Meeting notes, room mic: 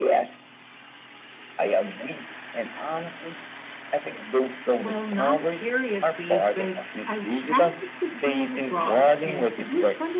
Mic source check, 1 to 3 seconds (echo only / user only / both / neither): echo only